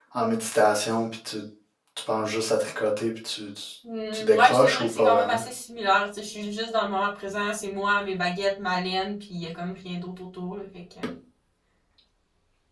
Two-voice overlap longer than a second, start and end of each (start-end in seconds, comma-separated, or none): 4.1-5.4